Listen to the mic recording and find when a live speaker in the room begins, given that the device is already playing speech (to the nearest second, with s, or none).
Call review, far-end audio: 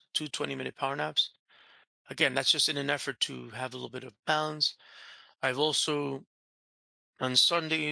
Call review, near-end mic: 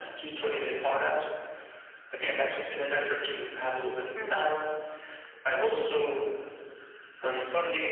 4 s